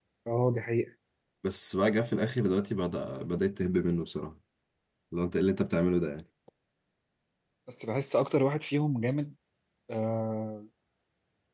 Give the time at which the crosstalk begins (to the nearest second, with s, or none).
none